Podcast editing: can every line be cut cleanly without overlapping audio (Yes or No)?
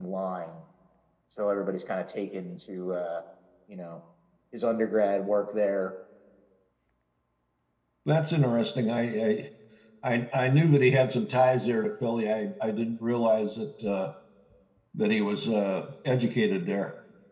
Yes